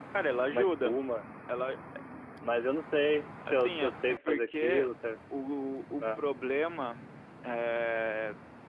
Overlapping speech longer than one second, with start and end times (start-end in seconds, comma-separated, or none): 3.5-4.9